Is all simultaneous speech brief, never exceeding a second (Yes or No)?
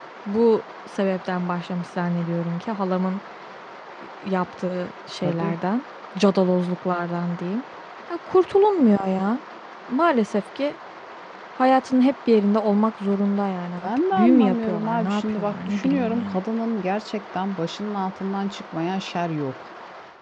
No